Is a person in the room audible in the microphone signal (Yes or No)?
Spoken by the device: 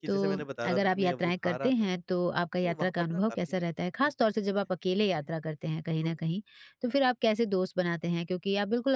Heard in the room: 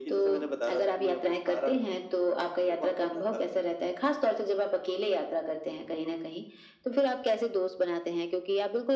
No